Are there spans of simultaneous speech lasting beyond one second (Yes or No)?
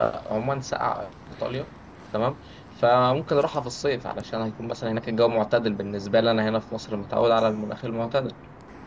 No